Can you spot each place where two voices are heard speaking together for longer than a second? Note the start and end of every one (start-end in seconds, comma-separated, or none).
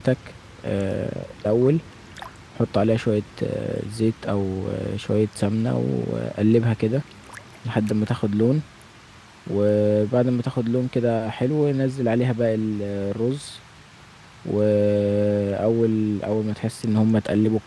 none